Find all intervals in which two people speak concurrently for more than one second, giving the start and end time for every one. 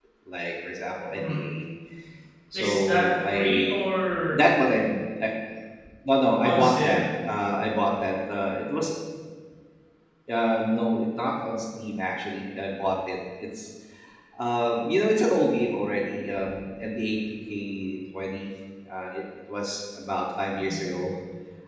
2.5-3.8

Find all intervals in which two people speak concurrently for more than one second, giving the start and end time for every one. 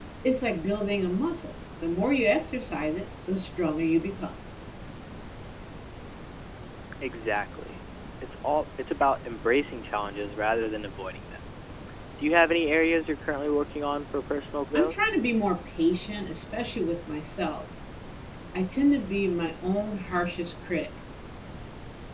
none

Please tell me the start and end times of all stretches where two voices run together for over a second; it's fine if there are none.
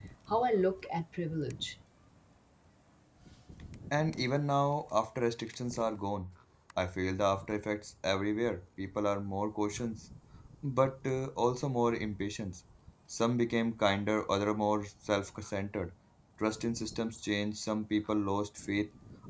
none

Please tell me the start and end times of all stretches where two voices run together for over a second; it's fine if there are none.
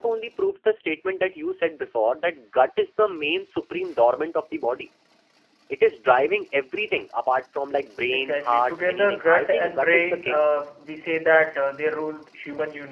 8.1-10.4

